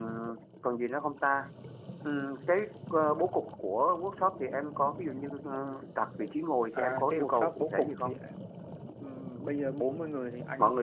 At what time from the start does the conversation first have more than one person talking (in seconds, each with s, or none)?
6.7 s